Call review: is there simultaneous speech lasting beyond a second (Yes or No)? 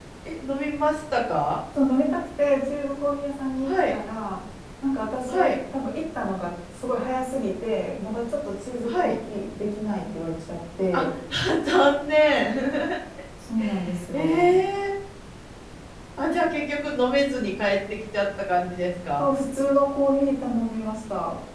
No